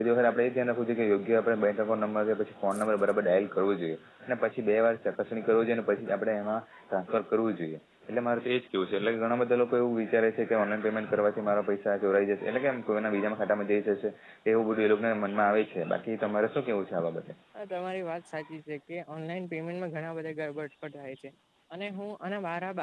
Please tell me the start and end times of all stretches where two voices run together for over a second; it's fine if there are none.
none

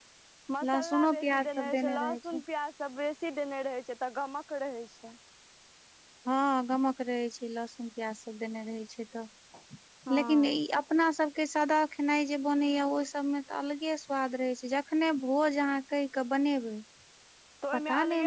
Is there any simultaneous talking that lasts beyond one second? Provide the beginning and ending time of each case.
0.7-2.4

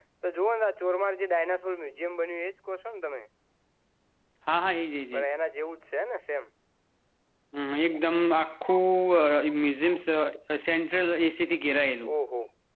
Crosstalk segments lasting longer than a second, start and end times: none

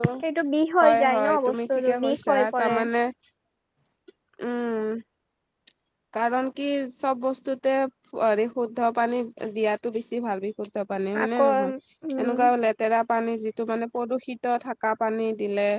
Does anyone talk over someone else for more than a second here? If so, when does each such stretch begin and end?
0.8-2.8

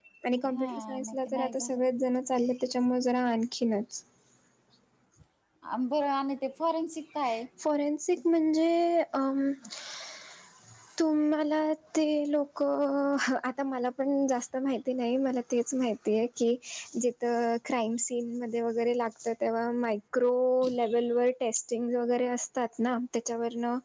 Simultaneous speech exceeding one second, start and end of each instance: 0.5-1.8

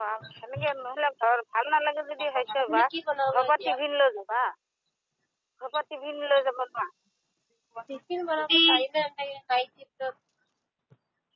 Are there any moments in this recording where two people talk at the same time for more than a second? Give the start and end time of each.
none

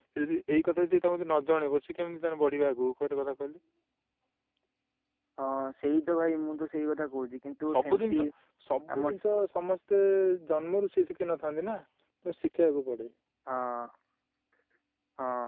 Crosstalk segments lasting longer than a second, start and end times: none

